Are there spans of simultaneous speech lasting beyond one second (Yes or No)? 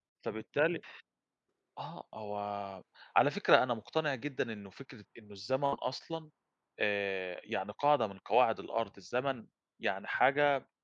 No